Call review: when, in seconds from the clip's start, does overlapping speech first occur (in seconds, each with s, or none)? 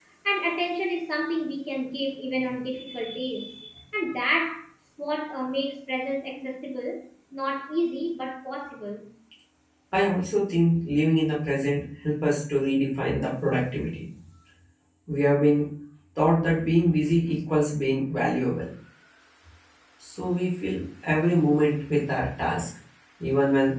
none